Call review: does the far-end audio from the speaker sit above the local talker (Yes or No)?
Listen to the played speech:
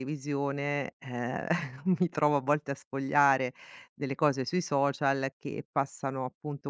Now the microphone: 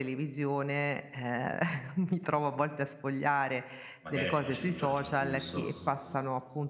Yes